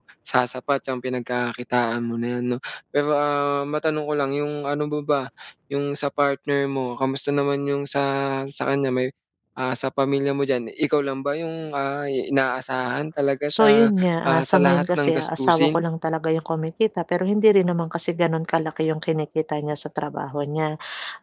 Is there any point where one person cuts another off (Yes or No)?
Yes